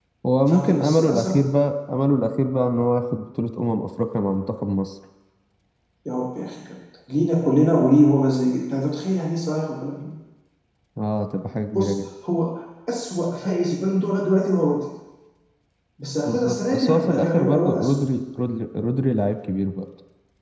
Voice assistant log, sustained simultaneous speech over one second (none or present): present